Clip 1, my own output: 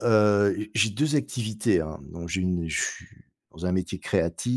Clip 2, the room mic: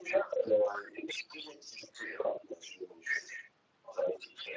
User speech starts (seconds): none

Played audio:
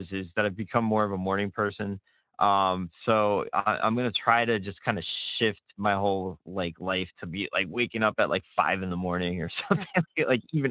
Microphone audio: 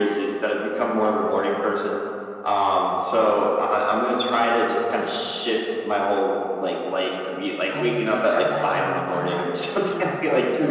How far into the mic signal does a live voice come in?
7.7 s

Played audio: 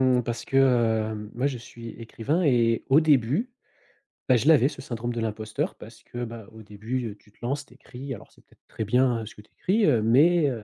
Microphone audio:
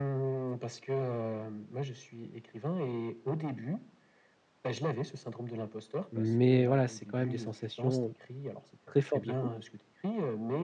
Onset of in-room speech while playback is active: 6.1 s

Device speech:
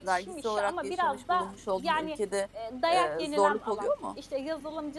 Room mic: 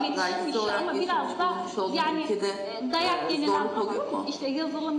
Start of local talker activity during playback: none

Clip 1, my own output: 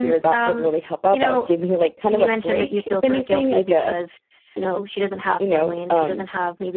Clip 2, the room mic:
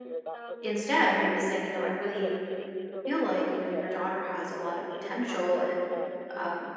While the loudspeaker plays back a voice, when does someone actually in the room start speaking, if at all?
0.6 s

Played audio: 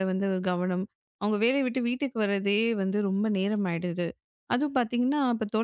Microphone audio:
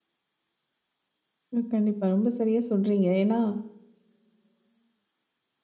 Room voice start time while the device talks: 1.6 s

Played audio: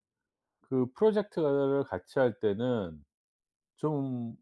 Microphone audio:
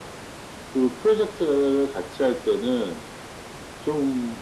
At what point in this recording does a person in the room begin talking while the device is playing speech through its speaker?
none

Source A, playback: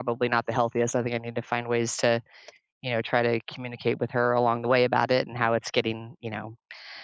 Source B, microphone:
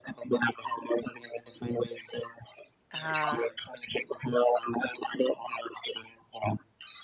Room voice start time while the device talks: 2.9 s

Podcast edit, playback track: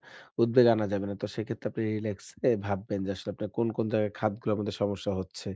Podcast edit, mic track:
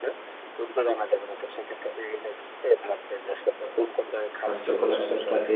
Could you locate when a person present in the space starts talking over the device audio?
4.4 s

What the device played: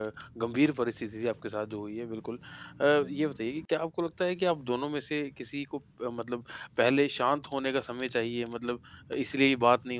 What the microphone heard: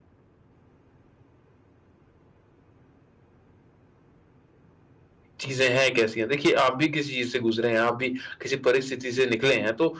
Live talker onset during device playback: 5.4 s

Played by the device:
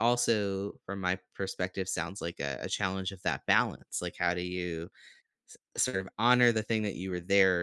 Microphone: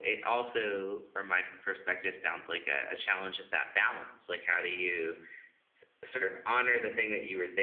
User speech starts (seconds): none

